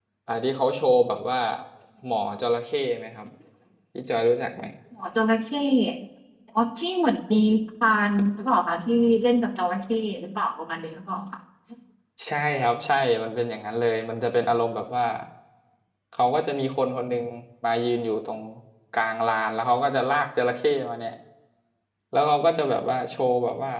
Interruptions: none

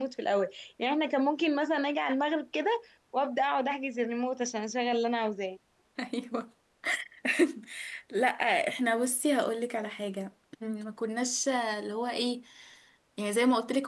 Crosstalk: none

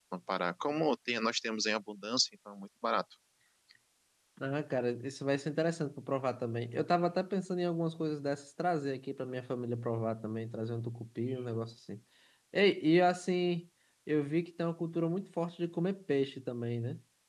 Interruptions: none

